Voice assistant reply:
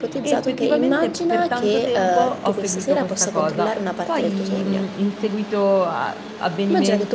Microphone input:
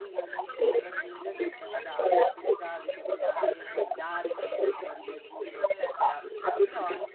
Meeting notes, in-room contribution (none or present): present